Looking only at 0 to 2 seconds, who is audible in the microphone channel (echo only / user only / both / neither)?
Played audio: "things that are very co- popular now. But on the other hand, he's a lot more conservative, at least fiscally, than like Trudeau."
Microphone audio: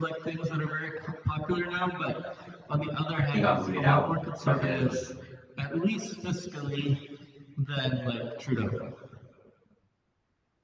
echo only